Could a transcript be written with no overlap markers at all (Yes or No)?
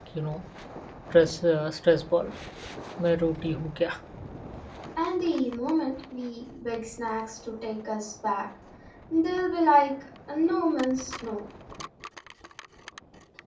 Yes